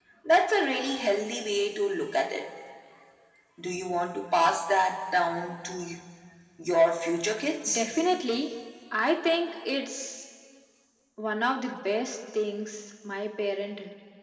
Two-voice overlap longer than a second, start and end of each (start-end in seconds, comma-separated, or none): none